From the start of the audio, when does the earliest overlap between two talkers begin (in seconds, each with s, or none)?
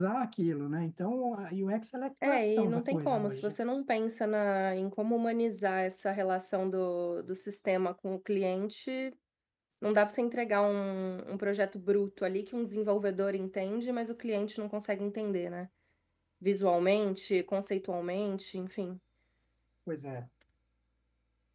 2.2 s